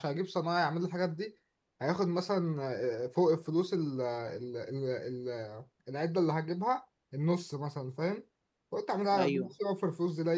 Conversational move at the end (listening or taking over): listening